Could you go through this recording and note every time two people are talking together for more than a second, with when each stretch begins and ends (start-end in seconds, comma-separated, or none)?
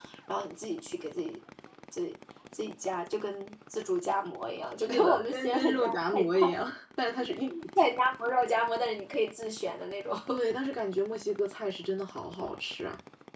4.9-6.3